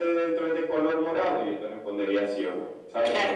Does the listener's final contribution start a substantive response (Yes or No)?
Yes